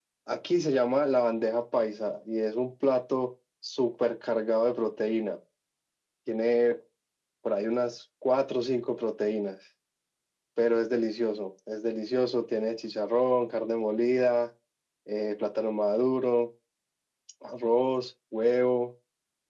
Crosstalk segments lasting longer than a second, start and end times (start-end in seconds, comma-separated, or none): none